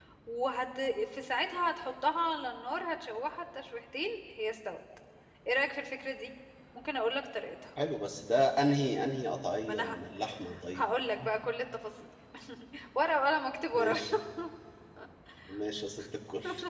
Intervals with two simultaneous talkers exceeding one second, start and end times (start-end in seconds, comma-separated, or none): none